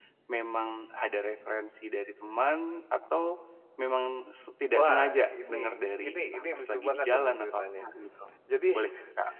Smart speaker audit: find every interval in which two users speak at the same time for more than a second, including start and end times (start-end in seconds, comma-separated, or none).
4.7-7.9